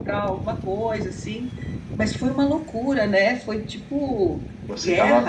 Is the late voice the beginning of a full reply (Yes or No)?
Yes